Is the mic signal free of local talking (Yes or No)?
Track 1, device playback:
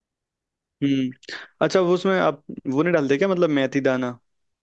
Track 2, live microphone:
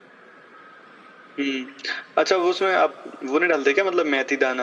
Yes